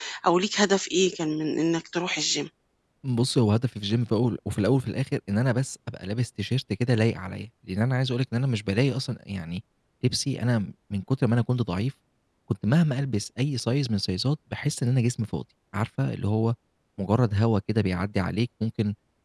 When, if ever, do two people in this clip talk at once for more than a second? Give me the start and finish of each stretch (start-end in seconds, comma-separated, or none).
none